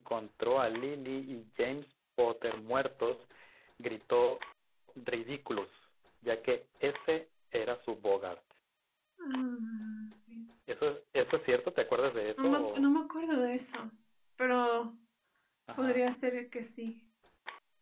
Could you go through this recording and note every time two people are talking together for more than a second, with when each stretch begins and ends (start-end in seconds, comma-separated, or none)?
none